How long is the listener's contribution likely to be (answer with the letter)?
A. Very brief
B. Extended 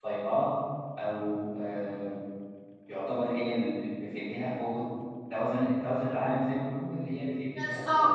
B